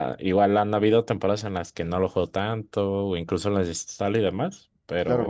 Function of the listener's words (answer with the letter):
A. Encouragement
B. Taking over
B